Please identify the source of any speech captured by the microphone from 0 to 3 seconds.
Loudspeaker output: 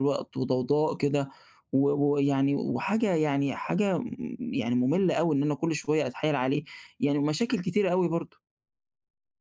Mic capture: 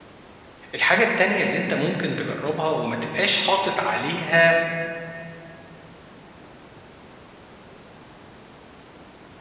user only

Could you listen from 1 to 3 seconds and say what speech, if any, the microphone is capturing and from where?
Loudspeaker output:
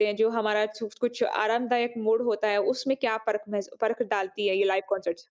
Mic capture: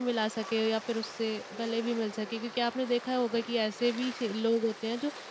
user only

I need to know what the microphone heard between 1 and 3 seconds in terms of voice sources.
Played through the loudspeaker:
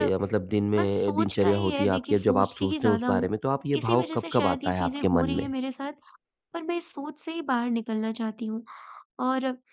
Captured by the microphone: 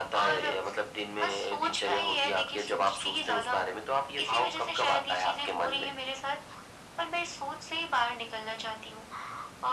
echo only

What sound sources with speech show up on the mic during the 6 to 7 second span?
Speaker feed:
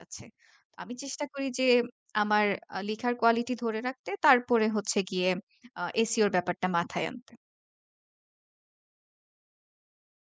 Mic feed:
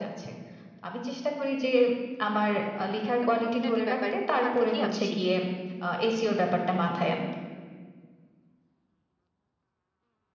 echo only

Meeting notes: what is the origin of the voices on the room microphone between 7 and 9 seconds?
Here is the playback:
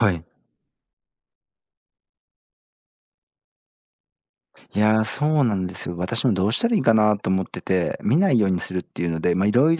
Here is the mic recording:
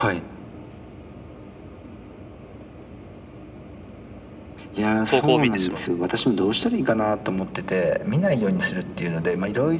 echo only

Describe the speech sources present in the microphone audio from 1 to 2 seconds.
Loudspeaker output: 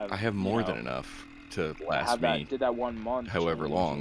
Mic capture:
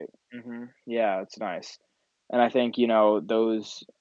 user only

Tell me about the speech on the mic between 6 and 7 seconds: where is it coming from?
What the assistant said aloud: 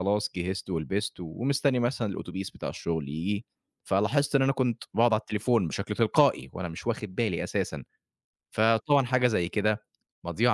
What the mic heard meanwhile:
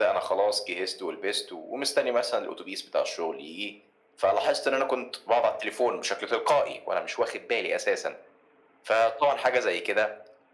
echo only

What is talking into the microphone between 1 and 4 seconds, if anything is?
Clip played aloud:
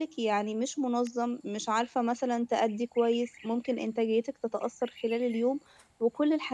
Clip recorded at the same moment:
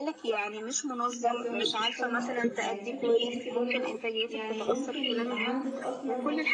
both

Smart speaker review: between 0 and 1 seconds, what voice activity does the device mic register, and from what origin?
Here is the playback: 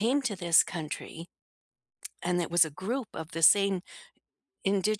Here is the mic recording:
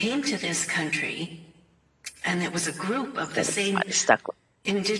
echo only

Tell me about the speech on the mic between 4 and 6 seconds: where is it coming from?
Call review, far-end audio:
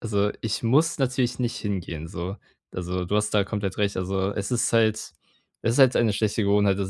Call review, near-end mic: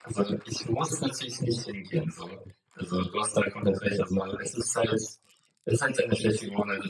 echo only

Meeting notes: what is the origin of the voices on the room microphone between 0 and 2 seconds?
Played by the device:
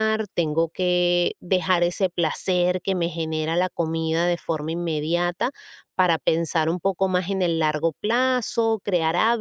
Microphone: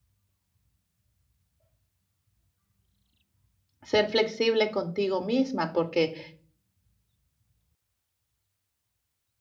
neither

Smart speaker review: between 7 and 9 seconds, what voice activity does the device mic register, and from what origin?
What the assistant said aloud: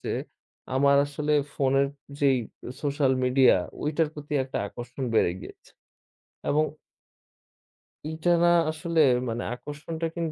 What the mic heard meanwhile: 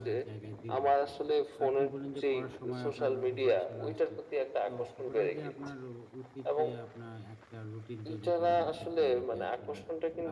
both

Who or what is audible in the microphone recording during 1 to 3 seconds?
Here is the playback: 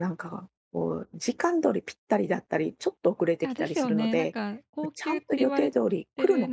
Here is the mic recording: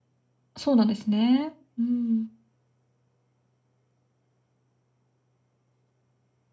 user only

